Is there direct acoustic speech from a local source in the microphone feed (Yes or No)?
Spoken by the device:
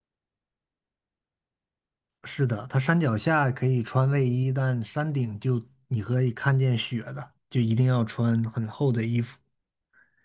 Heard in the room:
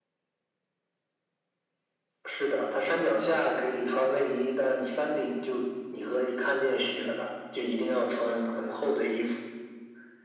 No